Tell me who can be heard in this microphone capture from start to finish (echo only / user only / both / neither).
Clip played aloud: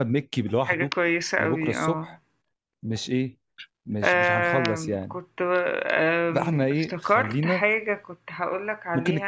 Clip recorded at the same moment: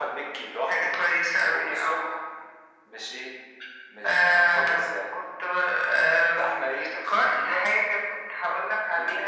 echo only